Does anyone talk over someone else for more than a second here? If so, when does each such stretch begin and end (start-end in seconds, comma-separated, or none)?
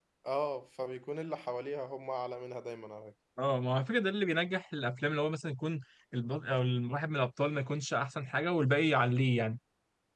none